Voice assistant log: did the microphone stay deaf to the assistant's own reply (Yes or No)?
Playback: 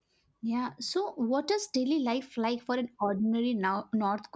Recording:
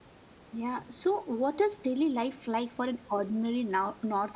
No